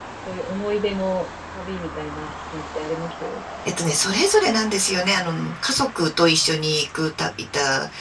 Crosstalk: none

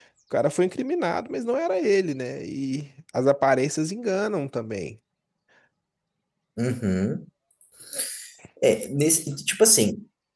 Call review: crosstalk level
none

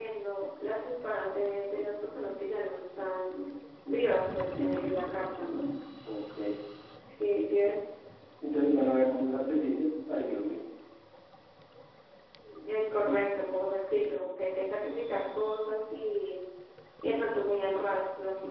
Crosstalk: none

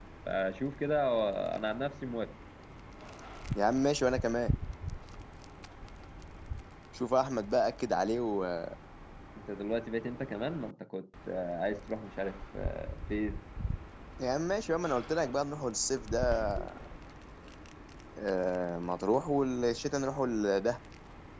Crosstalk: none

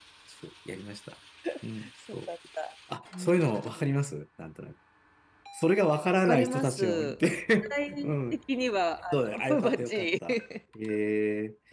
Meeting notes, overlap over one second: present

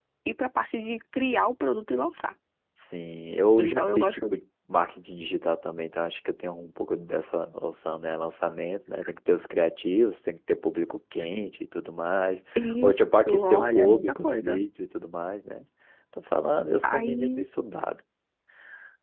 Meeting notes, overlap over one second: present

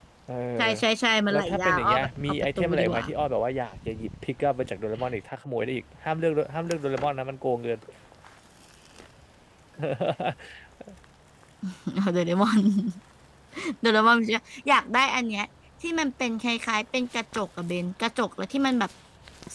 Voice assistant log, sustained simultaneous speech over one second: present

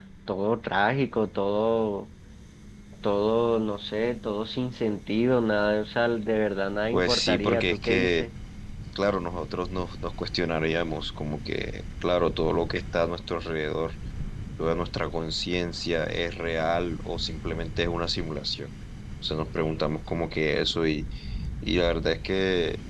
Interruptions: present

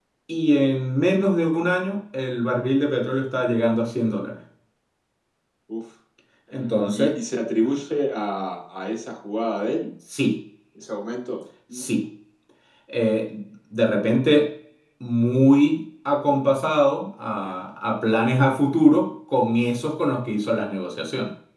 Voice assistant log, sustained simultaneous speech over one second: none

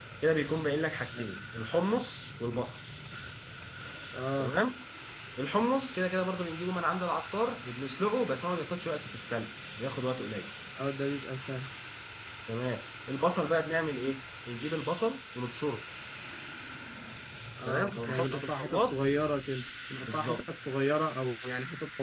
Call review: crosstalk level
present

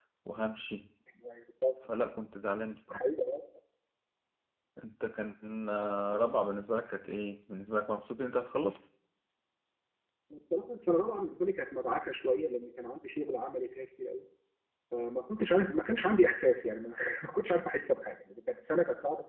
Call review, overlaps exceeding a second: none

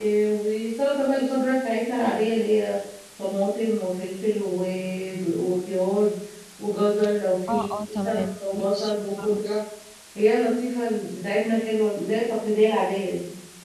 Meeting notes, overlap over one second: present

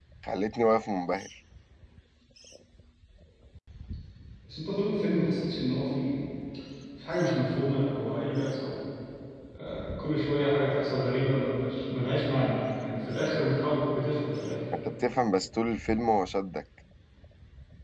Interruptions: none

